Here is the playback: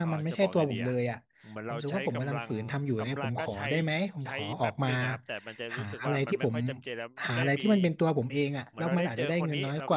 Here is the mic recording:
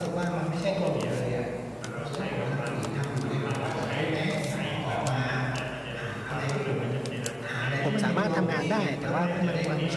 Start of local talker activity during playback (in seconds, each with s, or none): 7.8 s